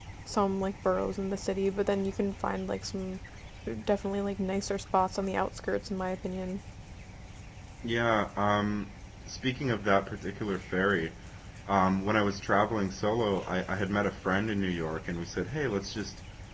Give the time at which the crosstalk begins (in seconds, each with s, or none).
none